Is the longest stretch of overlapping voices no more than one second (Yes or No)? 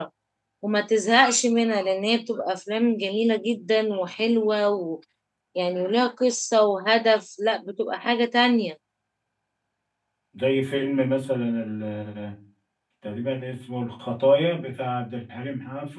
Yes